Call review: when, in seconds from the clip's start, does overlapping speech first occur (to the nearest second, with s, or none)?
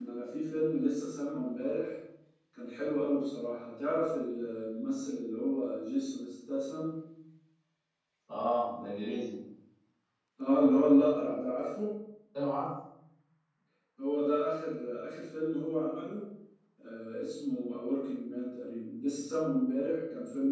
none